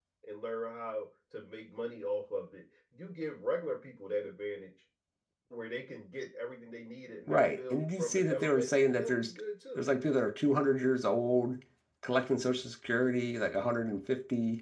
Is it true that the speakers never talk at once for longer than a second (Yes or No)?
No